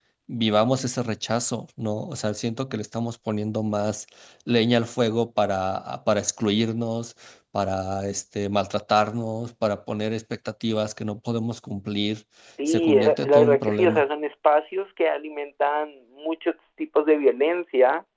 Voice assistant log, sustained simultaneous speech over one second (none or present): present